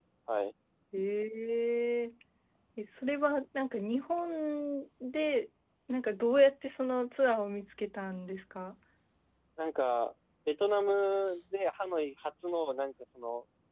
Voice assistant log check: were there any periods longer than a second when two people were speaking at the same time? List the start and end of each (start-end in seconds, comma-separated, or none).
none